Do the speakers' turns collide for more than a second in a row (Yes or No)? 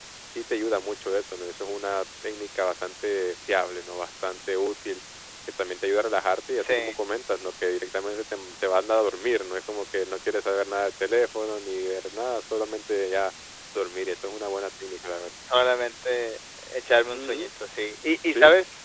No